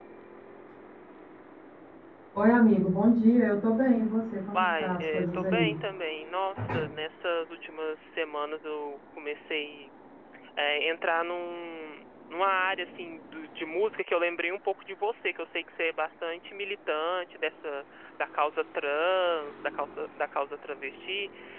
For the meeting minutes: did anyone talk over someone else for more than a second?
Yes, from 4.5 s

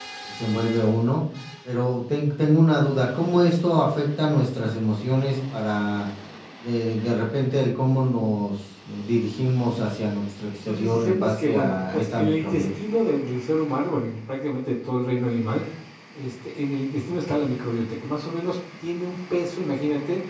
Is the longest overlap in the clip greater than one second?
Yes, from 10.6 s

